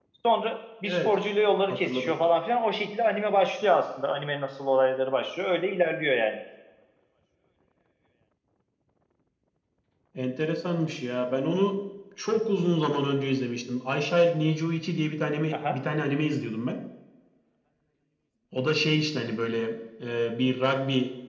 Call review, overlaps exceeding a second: none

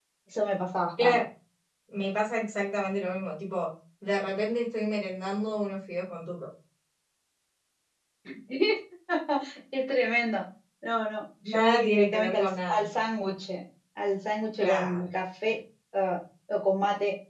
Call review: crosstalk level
present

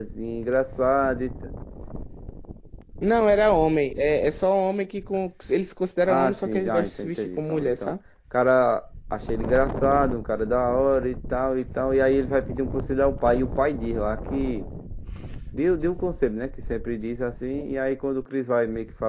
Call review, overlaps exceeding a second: present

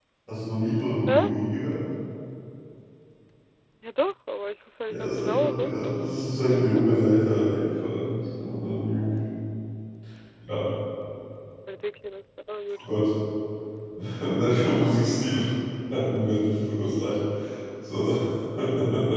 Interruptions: present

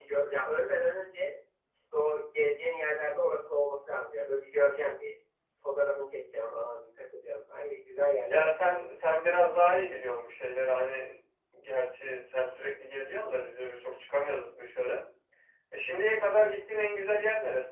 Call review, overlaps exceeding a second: none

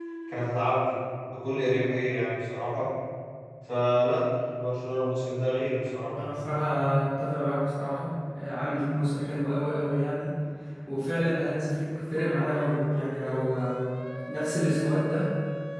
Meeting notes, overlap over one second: none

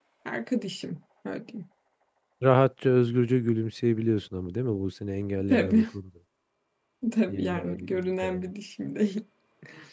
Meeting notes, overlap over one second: present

